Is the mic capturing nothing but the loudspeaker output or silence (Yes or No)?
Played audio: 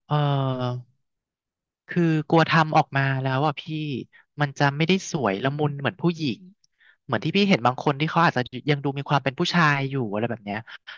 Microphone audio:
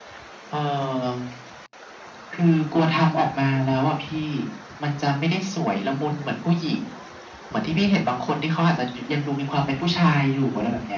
Yes